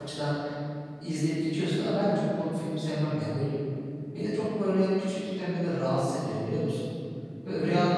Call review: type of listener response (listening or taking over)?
listening